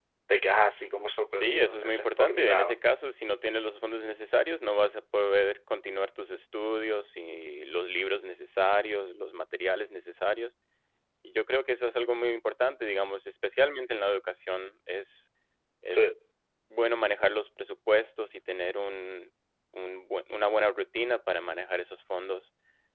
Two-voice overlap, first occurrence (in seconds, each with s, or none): 1.3 s